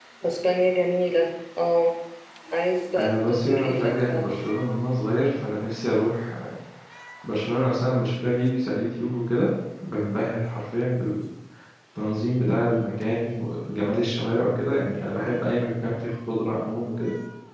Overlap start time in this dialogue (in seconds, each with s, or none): 3.0 s